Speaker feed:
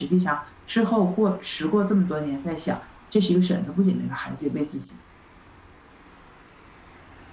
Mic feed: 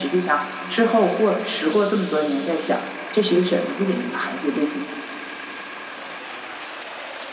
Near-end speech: none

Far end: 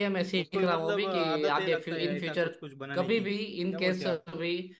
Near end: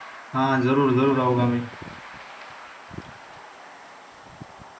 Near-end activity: present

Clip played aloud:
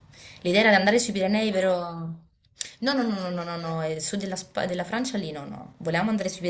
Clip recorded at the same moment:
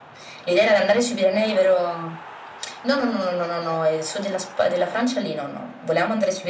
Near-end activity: none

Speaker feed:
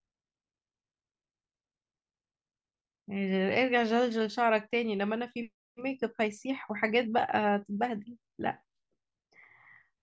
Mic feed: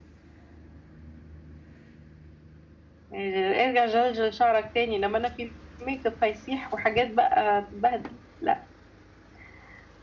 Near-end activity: none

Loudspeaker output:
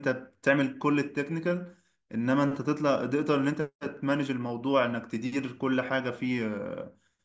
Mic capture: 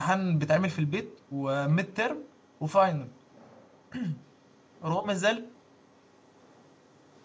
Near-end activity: present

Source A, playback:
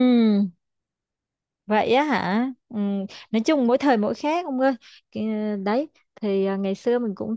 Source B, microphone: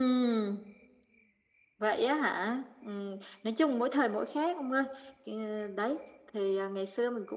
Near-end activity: none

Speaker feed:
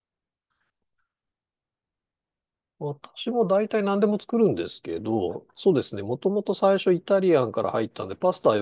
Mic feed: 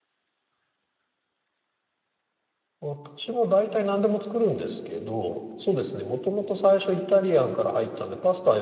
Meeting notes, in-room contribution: none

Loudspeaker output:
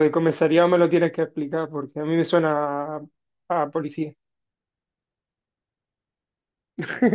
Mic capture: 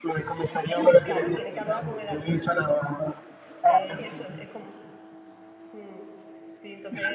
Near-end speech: present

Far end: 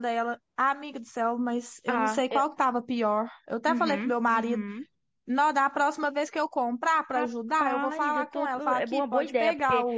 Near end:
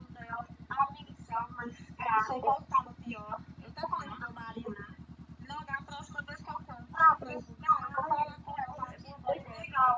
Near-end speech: none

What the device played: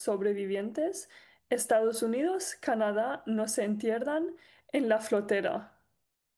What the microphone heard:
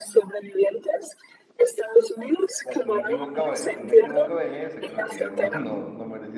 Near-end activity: present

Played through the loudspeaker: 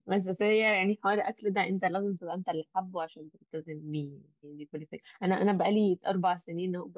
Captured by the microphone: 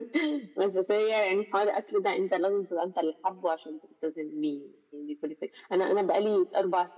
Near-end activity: none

